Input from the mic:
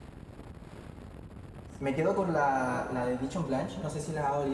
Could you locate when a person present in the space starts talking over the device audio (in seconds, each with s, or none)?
1.8 s